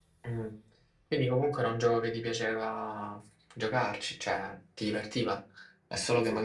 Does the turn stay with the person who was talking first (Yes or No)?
Yes